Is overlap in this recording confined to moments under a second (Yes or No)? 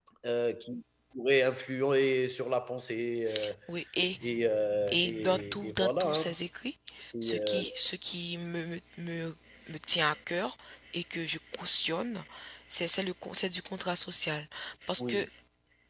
No